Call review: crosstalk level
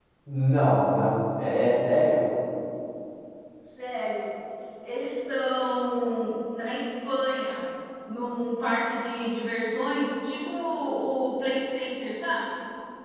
none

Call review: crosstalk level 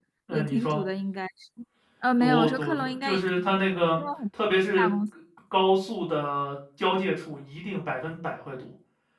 present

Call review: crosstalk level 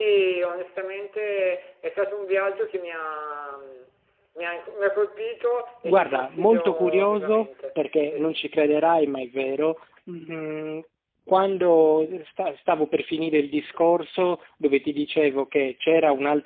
present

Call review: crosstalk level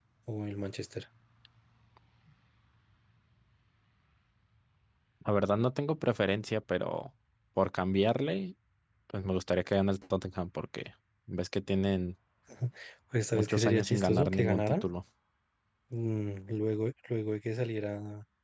present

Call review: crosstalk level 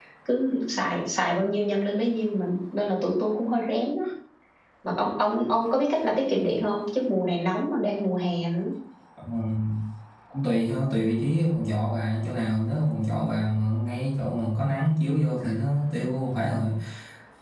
none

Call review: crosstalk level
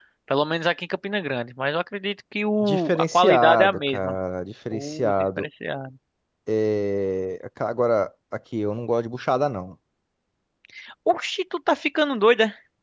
present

